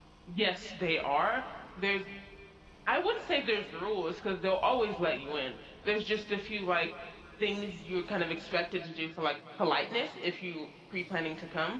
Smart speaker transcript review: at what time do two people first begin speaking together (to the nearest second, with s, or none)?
none